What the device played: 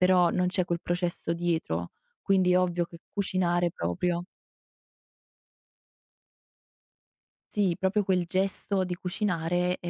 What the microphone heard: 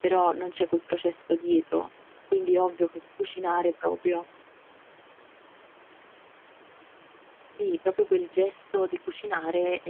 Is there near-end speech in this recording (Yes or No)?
No